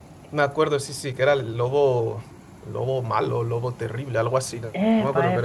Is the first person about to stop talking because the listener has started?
Yes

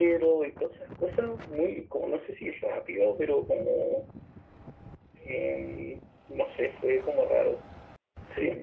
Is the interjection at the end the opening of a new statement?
Yes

